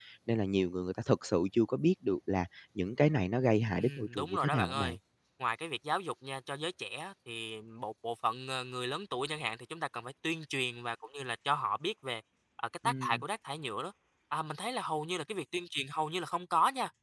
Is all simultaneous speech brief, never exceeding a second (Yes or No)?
No